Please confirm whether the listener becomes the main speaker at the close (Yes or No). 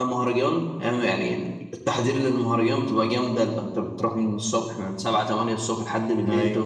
No